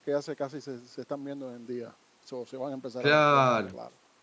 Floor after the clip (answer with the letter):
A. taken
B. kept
A